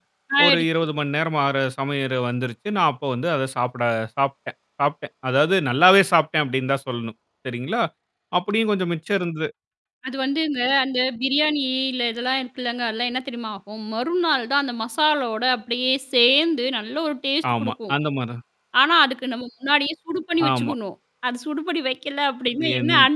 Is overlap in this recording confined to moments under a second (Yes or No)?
Yes